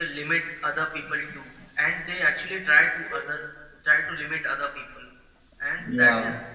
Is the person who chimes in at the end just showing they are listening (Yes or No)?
Yes